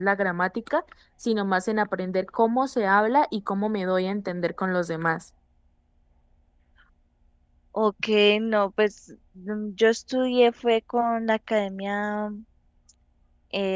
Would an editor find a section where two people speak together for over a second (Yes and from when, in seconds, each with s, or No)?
No